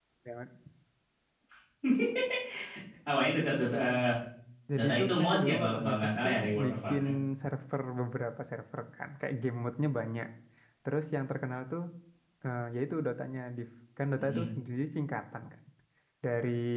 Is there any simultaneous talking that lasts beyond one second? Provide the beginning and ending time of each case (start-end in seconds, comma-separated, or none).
4.8-7.0